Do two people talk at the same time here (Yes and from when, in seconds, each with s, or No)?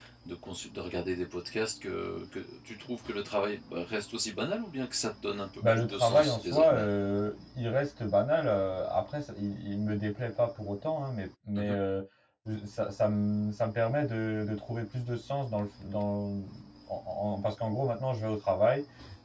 Yes, from 5.6 s